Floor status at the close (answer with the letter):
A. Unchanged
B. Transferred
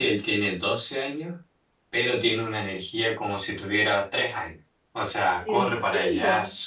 A